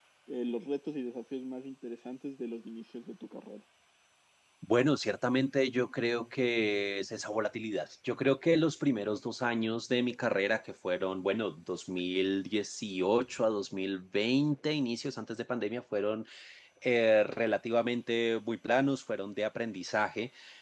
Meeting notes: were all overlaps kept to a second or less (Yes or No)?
Yes